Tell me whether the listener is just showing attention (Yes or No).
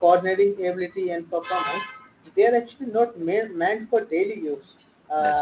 Yes